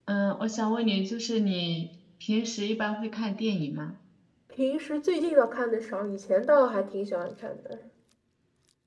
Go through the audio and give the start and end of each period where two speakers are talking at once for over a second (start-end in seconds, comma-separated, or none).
none